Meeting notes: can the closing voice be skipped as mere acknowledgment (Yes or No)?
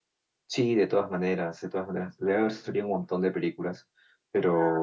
No